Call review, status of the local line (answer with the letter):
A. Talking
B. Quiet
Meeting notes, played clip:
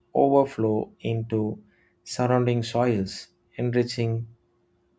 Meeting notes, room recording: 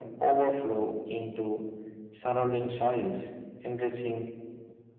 B